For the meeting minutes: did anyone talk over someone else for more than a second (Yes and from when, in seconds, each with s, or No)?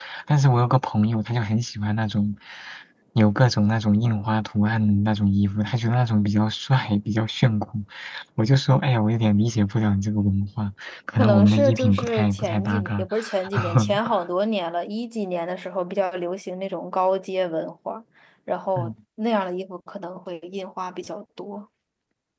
Yes, from 11.2 s